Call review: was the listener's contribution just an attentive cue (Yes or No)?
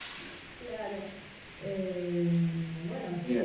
No